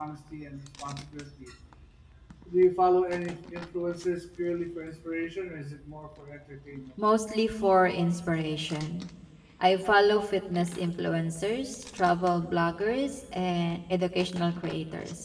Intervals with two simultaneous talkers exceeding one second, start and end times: none

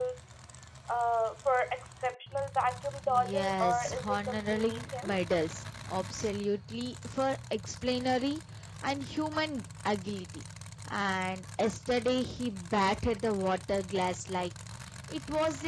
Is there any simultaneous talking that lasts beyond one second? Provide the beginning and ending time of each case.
3.1-5.1

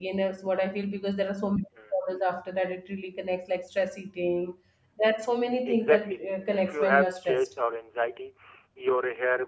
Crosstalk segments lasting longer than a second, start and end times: 5.7-7.5

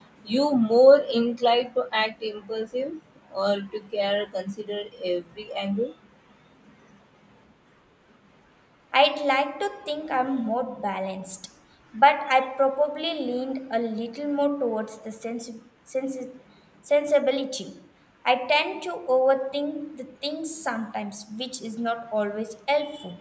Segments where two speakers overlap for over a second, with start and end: none

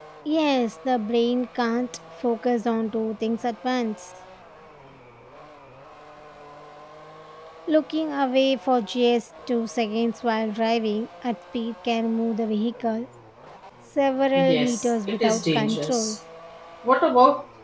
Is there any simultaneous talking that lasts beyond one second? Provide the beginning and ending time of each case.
14.3-16.2

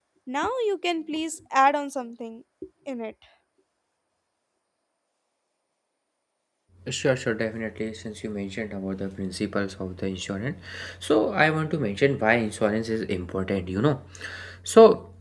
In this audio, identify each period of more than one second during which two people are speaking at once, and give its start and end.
none

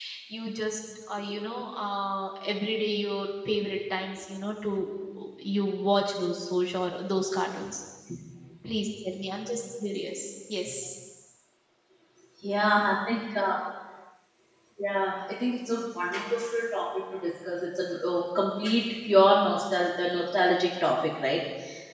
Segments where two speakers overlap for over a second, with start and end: none

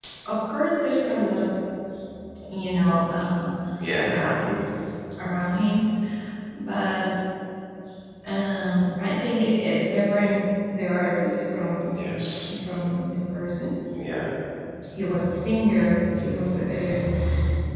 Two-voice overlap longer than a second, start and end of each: none

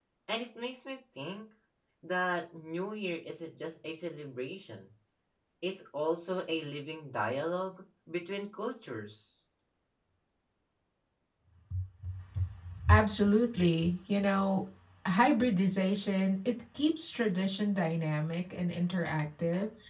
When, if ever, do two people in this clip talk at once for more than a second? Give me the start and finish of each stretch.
none

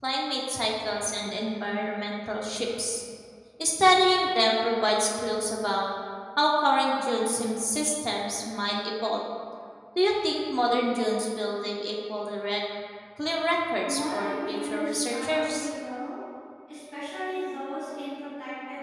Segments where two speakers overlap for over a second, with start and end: 13.8-15.7

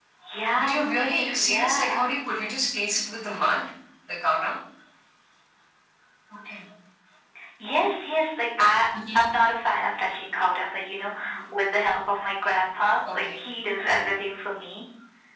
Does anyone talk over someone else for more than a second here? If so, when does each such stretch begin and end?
0.6-2.0

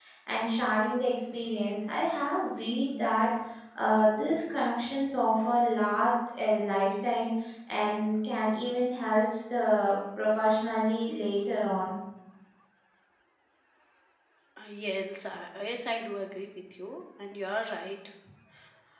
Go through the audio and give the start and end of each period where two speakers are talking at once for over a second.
none

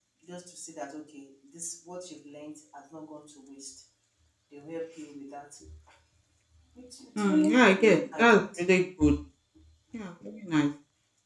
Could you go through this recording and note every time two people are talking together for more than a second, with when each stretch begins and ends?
7.2-8.6

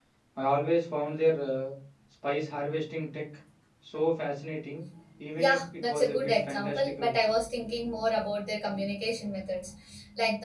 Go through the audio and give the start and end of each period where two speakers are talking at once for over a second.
5.4-7.2

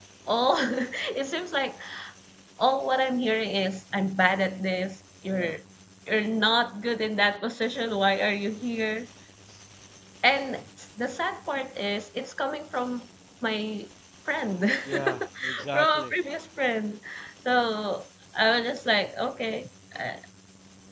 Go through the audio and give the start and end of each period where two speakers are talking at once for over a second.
14.8-16.1

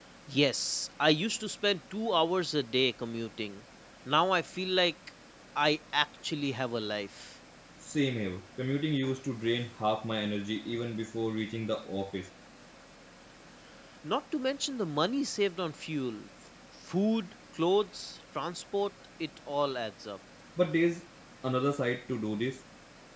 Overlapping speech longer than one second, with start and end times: none

